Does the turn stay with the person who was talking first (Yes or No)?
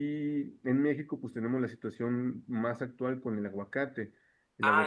No